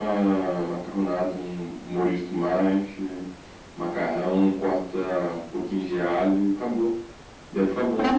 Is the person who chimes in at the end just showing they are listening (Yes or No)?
No